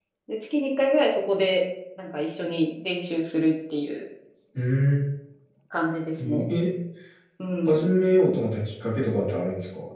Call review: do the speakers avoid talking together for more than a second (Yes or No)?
Yes